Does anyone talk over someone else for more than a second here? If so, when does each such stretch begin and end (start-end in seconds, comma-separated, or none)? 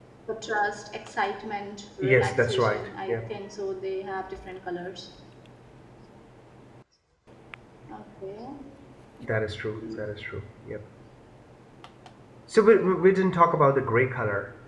2.0-3.3